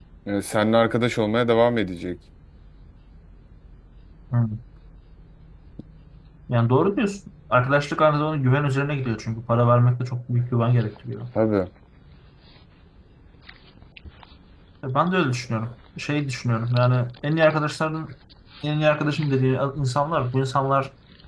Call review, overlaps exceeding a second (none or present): none